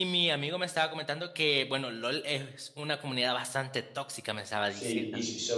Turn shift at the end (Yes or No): Yes